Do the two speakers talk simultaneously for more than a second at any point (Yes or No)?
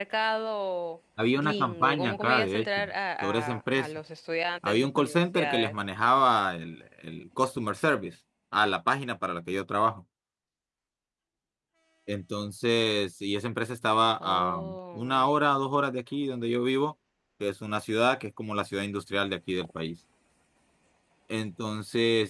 Yes